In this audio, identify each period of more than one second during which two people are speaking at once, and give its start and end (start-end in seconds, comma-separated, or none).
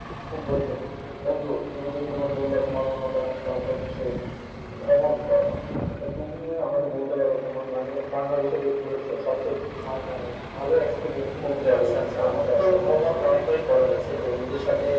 11.7-13.1